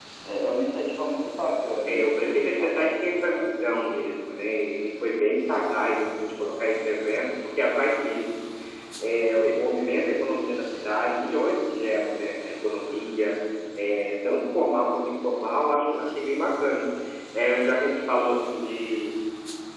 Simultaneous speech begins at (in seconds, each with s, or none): 1.9 s